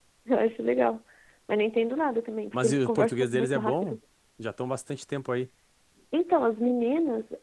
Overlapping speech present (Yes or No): Yes